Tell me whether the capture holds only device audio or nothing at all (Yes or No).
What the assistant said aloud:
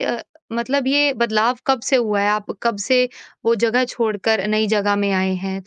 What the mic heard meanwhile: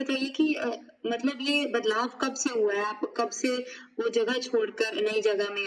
Yes